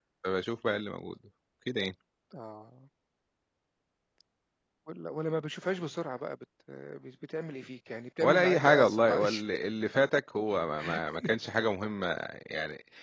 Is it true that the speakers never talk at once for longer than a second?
No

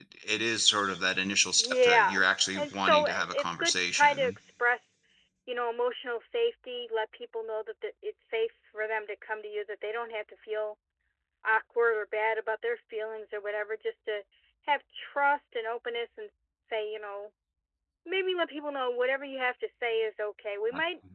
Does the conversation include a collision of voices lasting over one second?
Yes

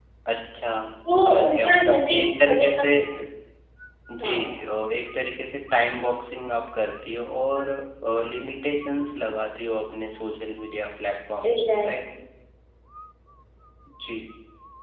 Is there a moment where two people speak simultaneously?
Yes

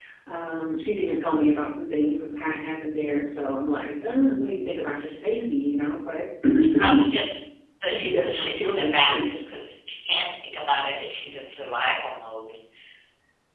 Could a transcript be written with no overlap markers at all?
No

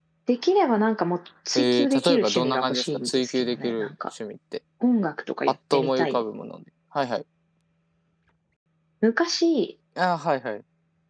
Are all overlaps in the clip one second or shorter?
No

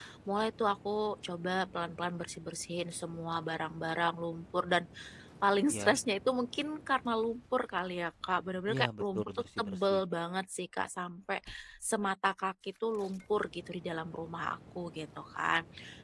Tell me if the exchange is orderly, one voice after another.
No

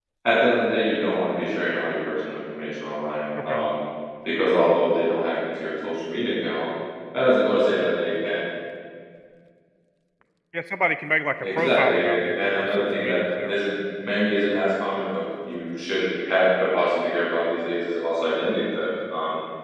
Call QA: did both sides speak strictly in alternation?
No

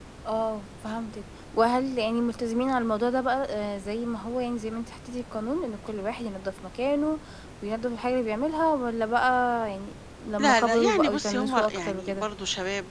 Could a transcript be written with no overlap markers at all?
No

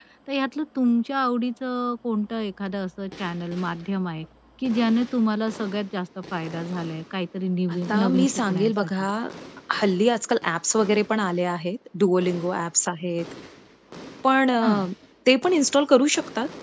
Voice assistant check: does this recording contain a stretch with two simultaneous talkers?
Yes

